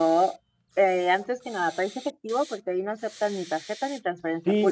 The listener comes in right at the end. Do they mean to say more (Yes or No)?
Yes